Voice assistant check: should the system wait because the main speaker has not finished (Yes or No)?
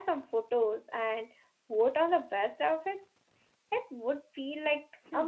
No